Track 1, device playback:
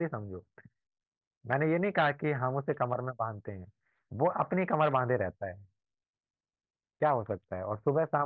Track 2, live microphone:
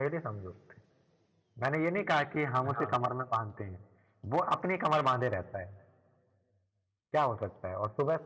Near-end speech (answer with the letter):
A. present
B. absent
A